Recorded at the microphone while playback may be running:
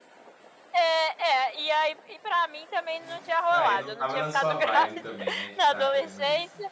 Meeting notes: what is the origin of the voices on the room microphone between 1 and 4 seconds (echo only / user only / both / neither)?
both